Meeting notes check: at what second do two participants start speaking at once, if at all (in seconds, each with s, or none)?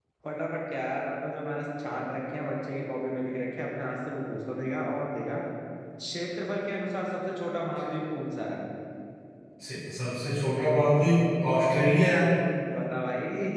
none